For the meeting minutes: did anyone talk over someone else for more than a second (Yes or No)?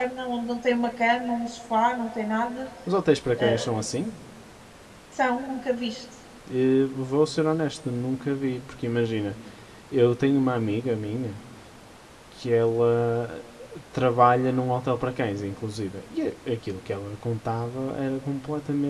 No